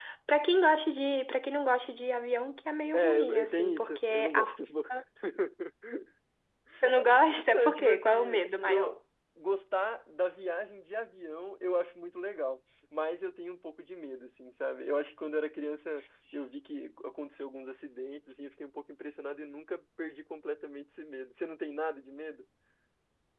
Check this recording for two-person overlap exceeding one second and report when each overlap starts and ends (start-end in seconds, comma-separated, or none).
2.9-4.6, 7.5-8.9